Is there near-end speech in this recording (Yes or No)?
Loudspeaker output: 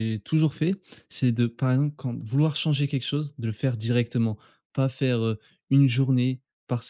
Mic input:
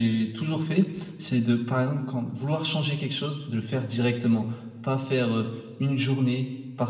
No